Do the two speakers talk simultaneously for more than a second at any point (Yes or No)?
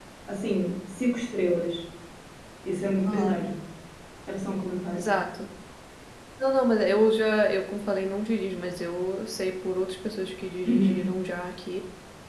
No